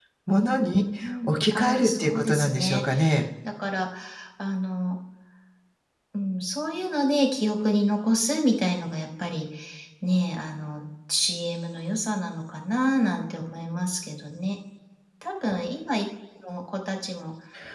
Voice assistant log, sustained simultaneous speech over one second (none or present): present